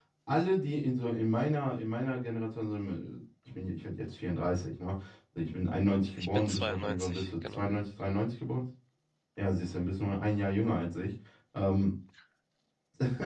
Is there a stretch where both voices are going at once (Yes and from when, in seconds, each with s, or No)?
Yes, from 6.2 s